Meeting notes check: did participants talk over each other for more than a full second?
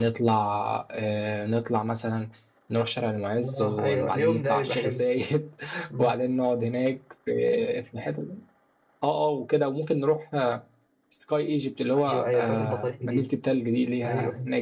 Yes, from 3.4 s

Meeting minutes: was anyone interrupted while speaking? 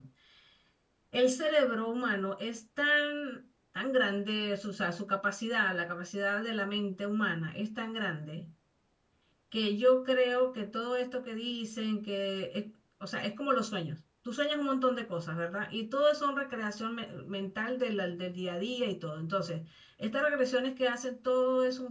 No

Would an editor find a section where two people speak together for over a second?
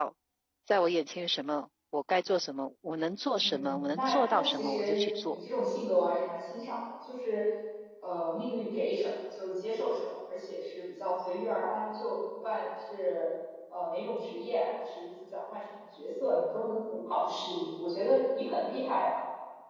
Yes, from 3.4 s

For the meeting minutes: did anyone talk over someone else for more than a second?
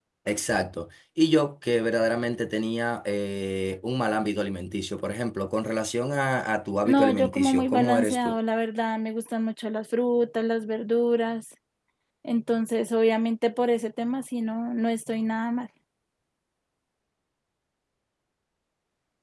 Yes, from 6.8 s

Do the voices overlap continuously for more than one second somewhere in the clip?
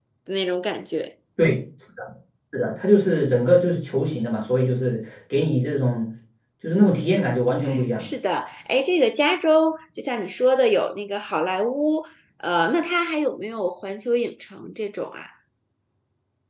No

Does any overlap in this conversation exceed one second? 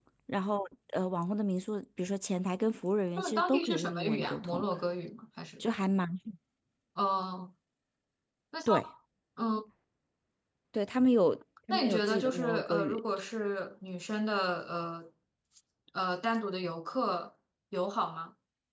Yes, from 3.2 s

